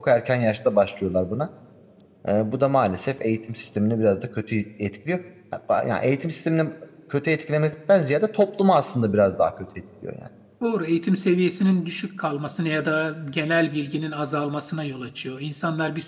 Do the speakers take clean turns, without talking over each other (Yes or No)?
Yes